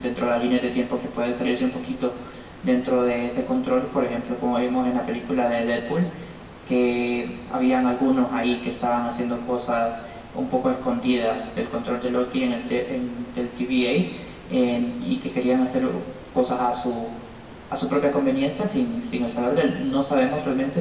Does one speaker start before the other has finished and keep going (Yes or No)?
No